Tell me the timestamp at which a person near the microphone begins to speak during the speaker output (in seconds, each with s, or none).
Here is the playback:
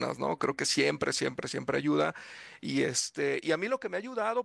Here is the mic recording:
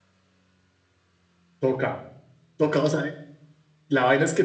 1.6 s